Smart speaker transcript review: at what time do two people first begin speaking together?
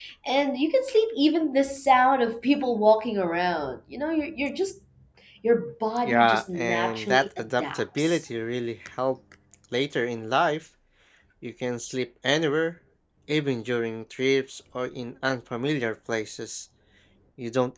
6.0 s

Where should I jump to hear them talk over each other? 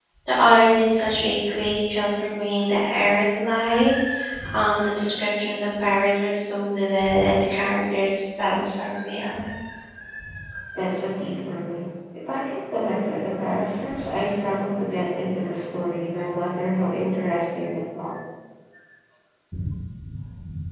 none

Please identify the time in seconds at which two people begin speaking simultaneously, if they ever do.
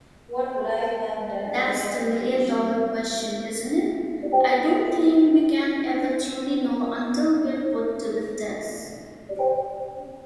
1.4 s

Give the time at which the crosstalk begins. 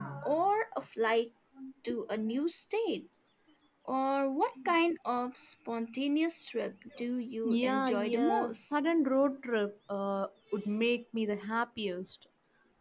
7.4 s

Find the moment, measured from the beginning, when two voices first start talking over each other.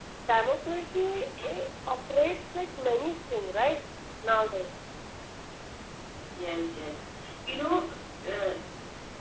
none

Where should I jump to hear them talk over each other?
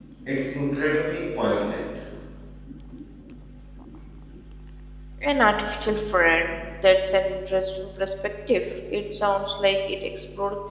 none

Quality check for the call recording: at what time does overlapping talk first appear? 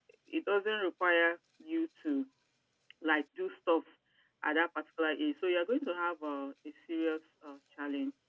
none

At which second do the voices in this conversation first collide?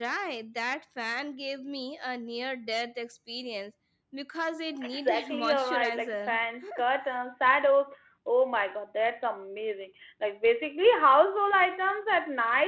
4.8 s

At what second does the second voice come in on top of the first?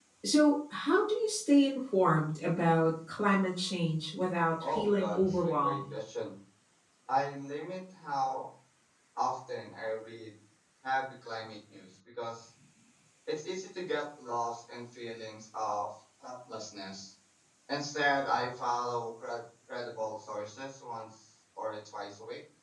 4.6 s

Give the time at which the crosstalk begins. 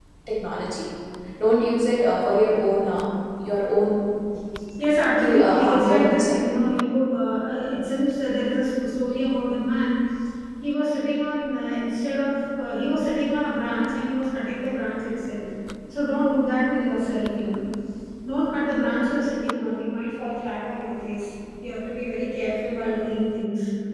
5.2 s

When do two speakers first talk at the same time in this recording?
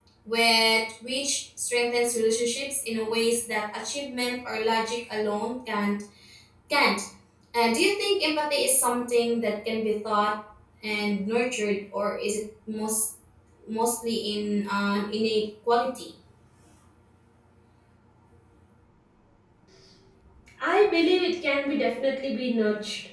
none

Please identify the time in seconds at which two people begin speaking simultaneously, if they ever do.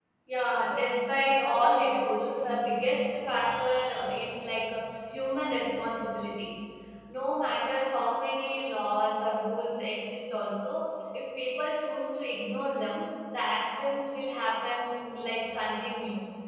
0.6 s

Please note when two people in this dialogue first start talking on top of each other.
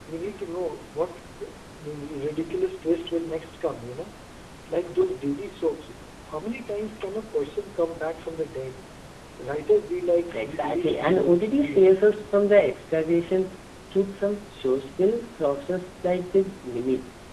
10.3 s

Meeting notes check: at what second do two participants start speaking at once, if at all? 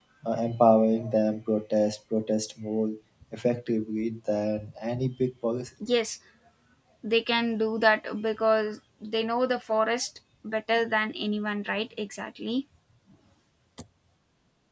none

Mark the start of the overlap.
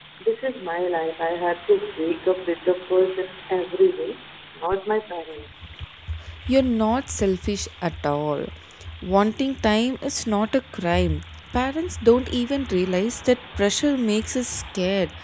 none

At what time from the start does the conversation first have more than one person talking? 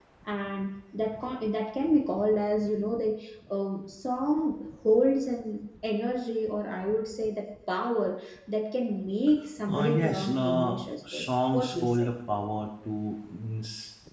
9.7 s

